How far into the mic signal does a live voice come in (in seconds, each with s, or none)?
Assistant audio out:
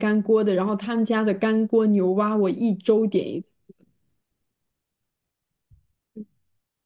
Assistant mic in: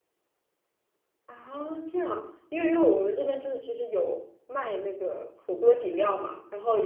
1.2 s